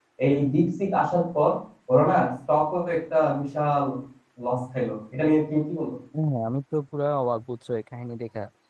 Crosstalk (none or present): none